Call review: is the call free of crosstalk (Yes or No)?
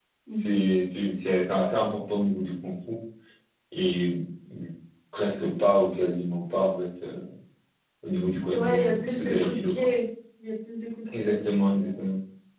No